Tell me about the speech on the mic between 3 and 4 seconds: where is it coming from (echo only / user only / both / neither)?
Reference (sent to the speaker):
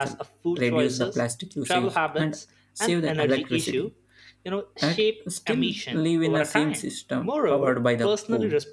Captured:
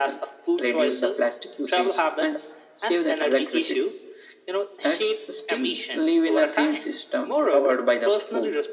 echo only